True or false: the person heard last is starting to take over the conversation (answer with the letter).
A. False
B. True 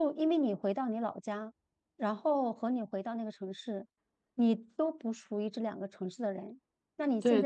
A